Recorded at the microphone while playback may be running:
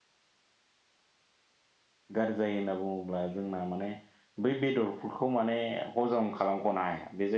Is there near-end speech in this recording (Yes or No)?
Yes